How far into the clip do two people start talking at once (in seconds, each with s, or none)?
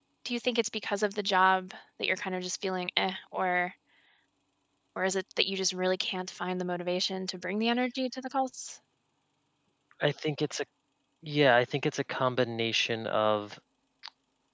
none